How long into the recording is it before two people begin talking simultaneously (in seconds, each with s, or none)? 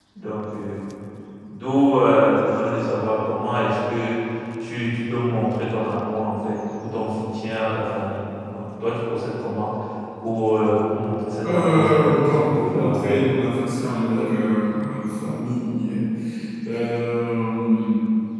11.4 s